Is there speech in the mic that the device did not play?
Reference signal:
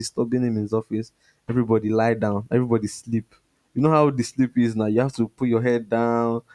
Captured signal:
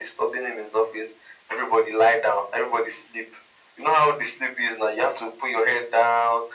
No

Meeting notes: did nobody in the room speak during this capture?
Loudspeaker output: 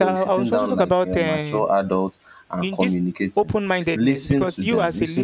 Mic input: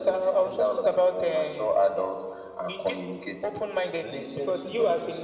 Yes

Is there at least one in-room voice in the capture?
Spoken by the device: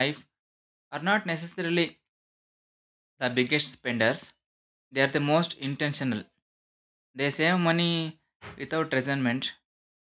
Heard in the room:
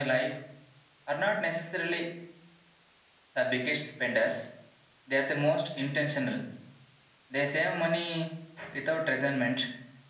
No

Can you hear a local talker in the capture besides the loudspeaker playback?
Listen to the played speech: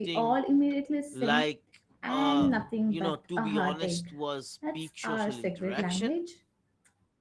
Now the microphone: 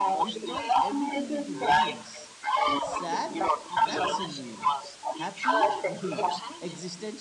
Yes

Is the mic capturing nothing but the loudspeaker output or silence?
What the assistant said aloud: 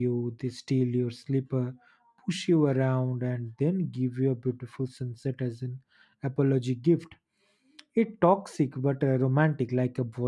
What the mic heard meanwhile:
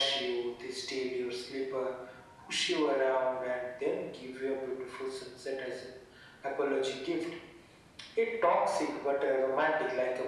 Yes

